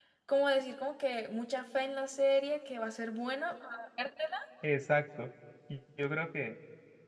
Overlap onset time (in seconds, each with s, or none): none